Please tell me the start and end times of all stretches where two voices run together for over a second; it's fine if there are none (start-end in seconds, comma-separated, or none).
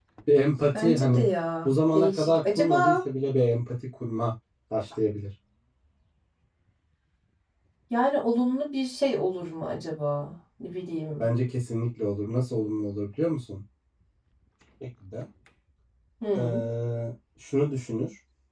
1.6-3.0